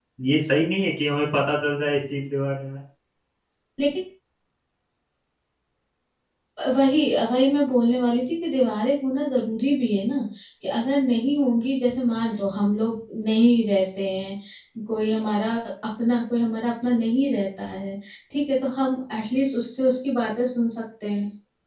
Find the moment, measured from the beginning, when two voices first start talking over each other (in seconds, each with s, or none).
none